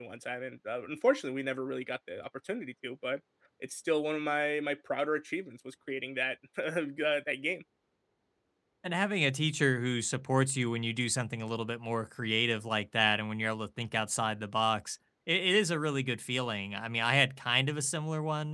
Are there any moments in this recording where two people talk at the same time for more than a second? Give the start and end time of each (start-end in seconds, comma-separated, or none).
none